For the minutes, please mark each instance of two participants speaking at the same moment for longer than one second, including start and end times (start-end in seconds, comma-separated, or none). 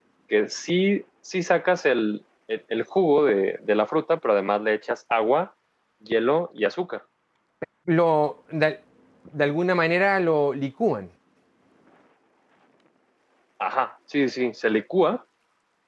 none